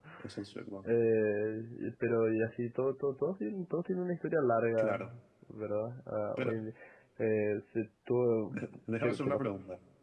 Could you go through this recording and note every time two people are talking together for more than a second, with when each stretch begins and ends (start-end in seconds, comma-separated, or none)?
none